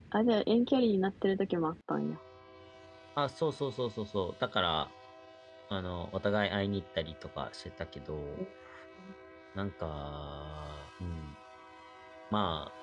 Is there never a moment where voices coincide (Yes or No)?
Yes